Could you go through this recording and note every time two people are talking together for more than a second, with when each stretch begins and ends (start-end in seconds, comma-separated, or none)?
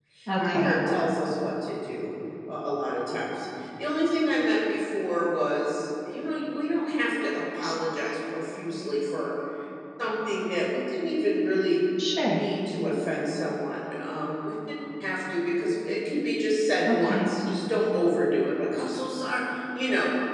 none